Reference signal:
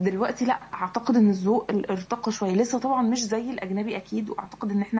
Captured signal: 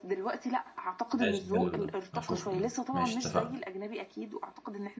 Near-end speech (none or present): present